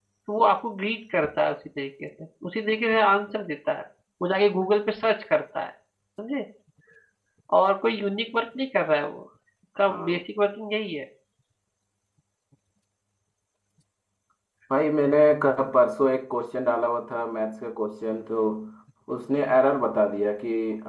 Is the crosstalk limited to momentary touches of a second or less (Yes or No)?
Yes